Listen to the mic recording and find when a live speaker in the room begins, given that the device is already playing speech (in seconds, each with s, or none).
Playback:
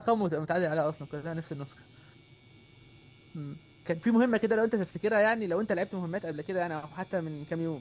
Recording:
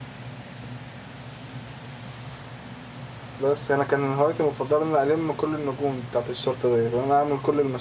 3.4 s